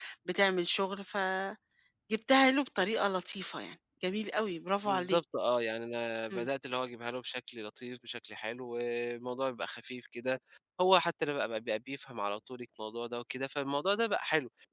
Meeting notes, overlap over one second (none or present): none